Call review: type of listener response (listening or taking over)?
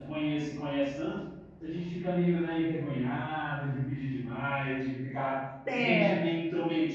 listening